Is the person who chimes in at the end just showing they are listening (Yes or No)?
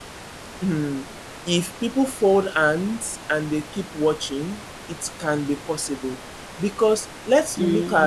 No